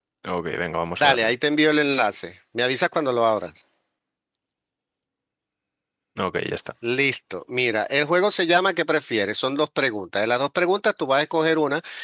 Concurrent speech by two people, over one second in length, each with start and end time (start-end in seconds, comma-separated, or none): none